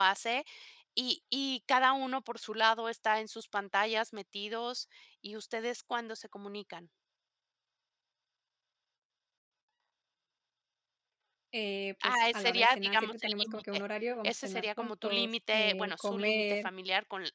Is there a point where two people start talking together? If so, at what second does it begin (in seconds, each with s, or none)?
12.0 s